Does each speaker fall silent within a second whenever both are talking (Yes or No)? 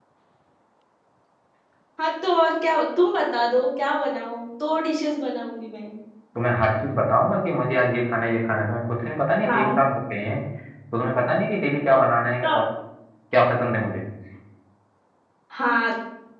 Yes